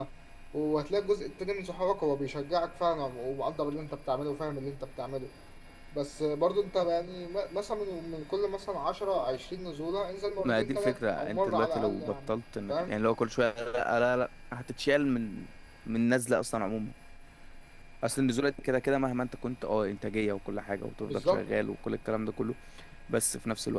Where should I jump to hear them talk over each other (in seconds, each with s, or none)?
10.4 s